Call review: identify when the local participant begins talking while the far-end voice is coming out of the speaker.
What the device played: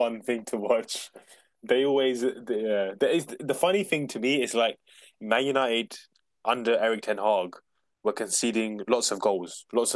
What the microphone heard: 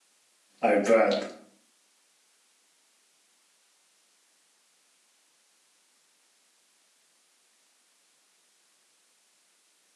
0.6 s

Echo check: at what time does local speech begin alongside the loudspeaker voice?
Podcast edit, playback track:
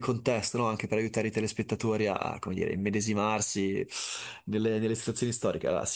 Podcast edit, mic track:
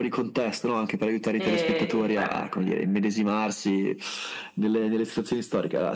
1.3 s

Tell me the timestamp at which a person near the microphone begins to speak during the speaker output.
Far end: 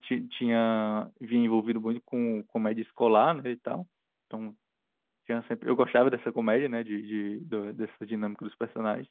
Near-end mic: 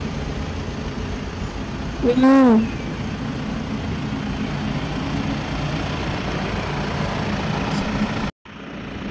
2.0 s

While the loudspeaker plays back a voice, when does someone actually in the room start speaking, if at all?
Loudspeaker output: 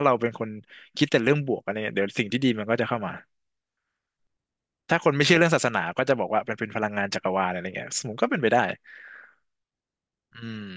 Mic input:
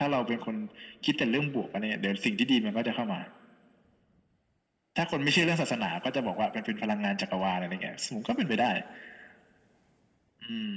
none

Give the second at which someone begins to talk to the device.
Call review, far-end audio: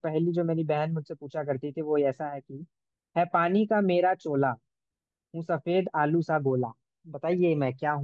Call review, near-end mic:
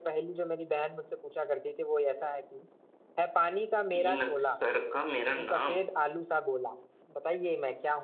4.0 s

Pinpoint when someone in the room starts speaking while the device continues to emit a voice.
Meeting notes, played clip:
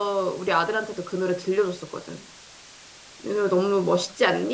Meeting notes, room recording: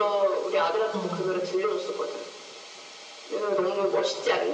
1.0 s

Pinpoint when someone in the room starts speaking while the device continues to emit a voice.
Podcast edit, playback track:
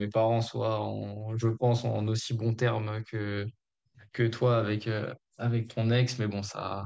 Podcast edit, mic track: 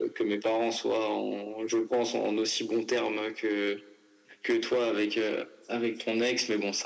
none

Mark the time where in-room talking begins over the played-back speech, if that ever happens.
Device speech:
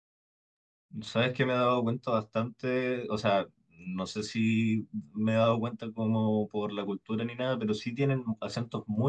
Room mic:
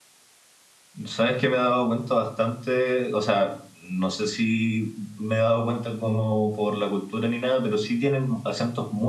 none

